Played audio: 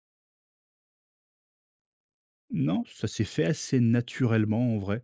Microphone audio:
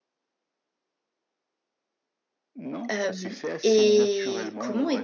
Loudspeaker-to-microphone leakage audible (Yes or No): Yes